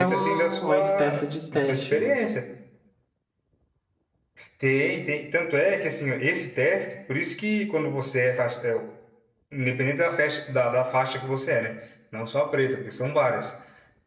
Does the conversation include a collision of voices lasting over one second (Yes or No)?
Yes